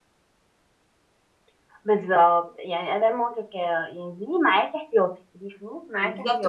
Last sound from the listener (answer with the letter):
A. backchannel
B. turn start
B